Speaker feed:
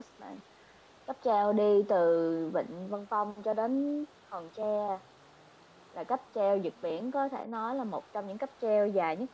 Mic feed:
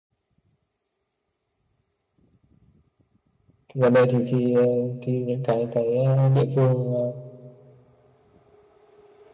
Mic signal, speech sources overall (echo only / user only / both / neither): user only